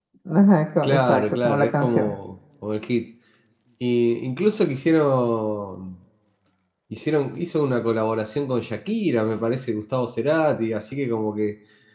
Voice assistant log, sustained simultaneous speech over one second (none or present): present